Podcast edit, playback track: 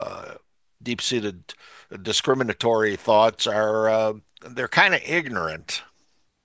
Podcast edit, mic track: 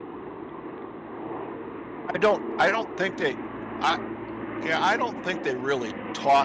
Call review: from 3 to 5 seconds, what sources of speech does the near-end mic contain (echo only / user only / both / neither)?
user only